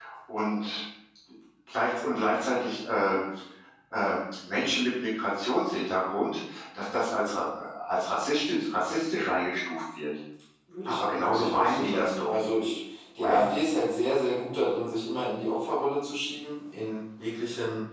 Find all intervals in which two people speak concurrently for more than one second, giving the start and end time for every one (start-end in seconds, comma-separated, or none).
10.8-12.3